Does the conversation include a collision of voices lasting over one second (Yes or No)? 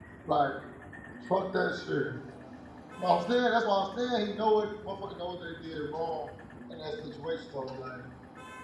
No